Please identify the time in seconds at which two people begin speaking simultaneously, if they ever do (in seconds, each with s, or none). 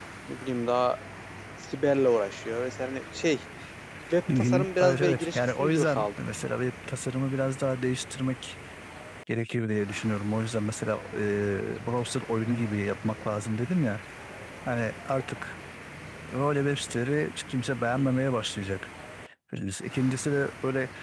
4.4 s